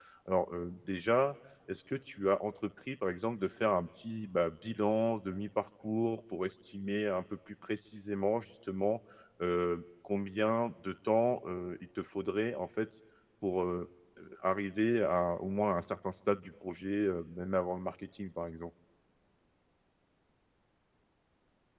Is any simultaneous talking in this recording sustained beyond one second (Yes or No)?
No